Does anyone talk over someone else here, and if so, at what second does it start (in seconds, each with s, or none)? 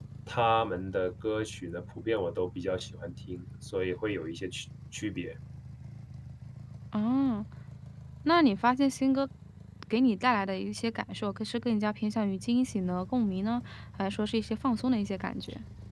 none